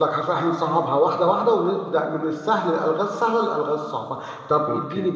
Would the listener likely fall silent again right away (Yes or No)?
Yes